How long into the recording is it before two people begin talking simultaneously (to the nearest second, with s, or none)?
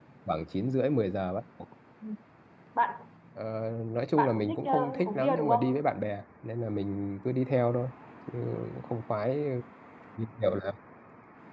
4 s